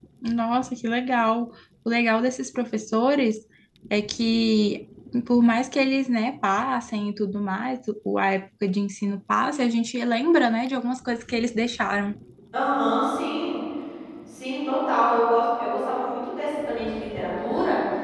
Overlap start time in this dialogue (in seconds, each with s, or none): none